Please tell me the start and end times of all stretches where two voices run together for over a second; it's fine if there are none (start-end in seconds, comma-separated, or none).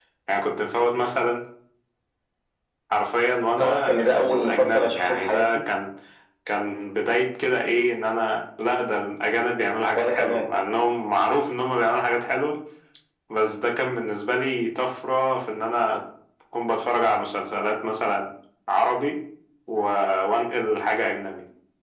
3.6-5.7